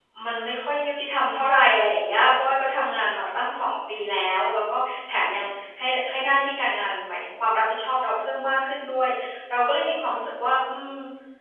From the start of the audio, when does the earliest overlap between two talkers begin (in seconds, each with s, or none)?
none